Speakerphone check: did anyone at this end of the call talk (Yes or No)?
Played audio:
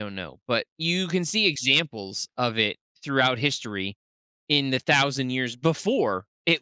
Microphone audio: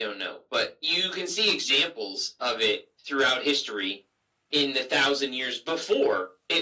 No